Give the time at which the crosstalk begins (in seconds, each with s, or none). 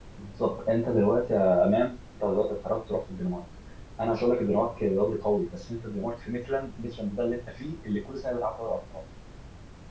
none